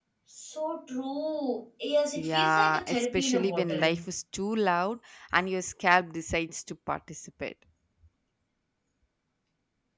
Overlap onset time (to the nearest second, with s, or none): 2 s